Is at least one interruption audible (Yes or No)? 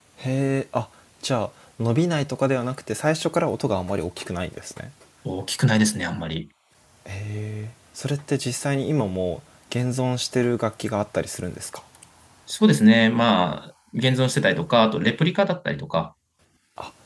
No